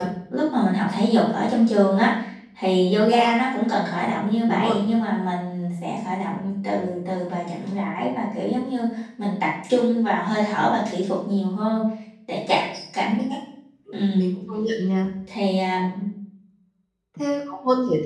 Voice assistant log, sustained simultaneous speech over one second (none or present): none